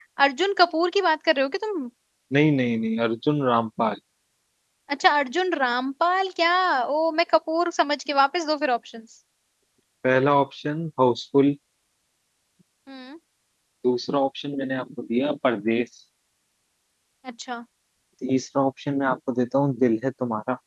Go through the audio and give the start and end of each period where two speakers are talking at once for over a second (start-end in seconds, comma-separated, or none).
none